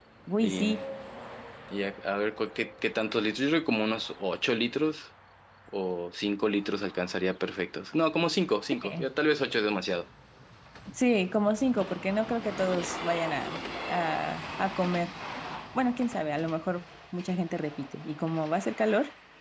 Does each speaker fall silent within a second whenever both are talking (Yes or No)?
Yes